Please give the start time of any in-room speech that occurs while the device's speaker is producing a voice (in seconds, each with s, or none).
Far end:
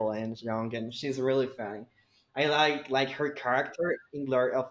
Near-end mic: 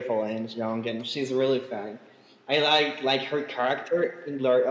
none